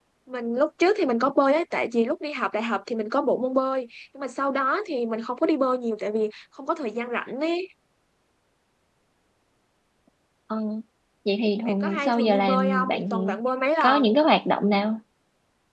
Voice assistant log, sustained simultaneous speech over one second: present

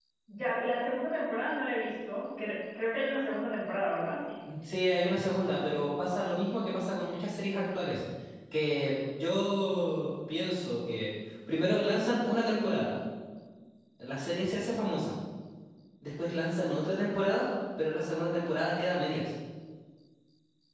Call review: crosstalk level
none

